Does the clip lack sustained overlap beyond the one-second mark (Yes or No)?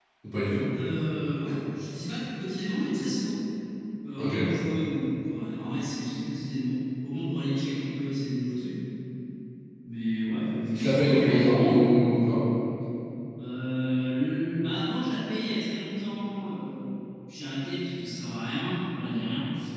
No